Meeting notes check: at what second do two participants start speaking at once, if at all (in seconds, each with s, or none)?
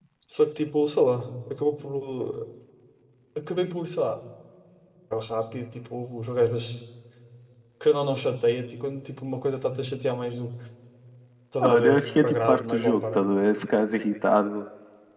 11.6 s